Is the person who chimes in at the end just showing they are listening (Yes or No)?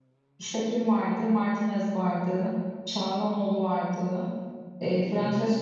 Yes